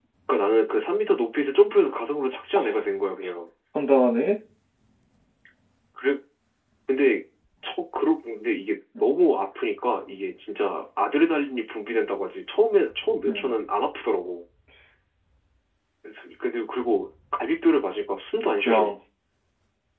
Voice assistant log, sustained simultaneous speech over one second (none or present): none